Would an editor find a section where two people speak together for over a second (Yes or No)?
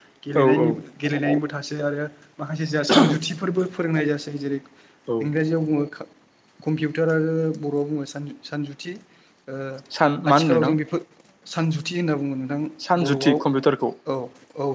No